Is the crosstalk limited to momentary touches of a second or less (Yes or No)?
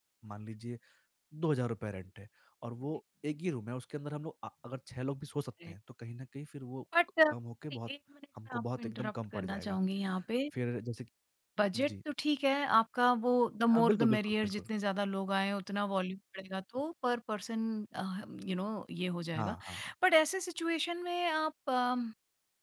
No